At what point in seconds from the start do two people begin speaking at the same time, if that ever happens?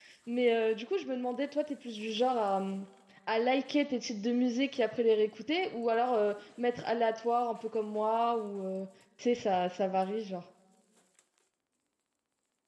none

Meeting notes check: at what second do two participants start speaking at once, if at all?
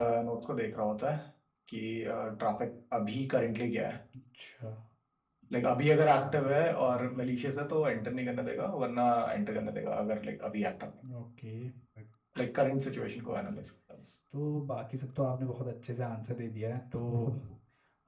none

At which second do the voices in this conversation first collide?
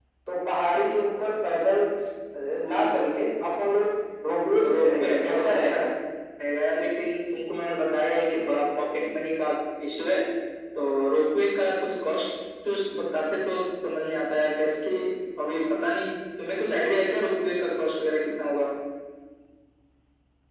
4.6 s

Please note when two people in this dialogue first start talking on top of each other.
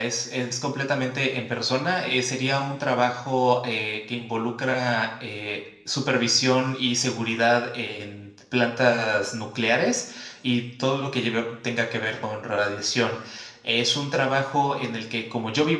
none

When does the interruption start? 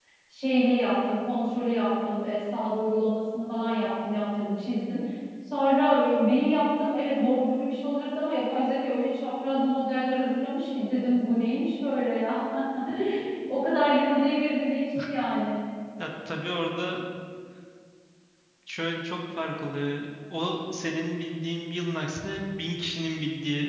none

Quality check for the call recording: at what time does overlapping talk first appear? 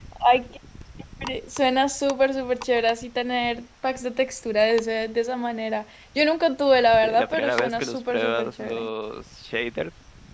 7.0 s

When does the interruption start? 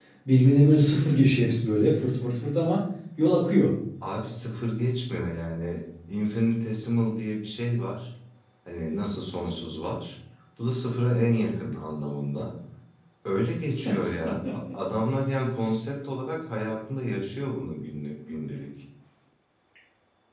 none

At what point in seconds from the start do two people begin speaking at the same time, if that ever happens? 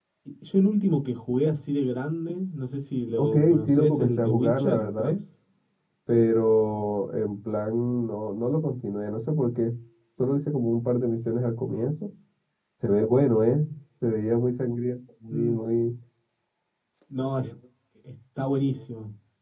3.2 s

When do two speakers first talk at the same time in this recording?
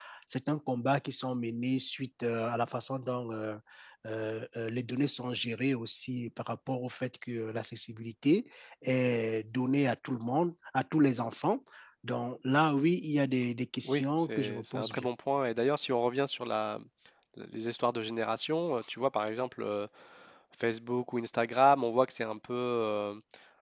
13.8 s

